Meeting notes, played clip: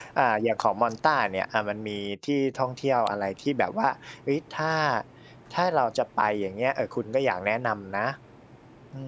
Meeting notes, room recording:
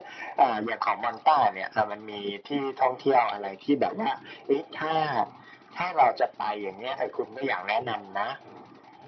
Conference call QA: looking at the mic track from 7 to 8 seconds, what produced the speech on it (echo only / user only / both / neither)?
echo only